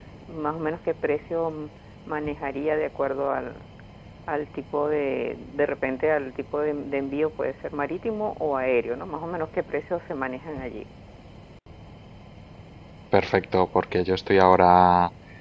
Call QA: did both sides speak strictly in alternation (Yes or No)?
Yes